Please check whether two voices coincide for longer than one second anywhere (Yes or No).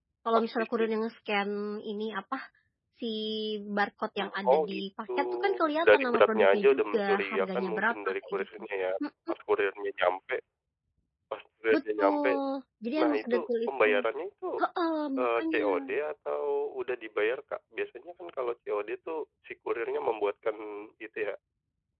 Yes